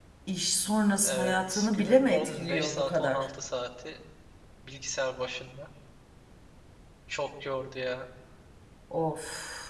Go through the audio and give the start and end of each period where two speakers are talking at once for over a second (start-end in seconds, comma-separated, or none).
1.0-3.2